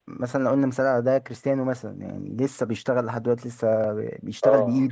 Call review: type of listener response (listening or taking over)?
taking over